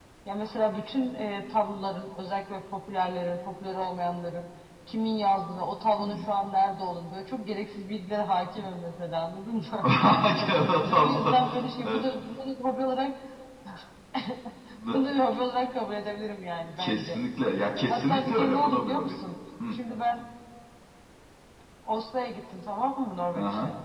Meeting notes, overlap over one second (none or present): present